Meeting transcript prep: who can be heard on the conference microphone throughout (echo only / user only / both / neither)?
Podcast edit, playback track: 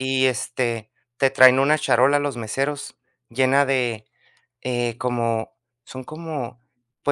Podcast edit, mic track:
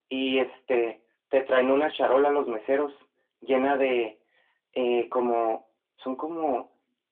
echo only